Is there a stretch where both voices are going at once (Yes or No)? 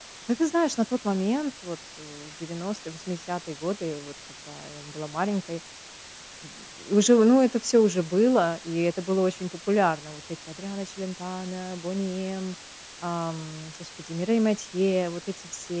No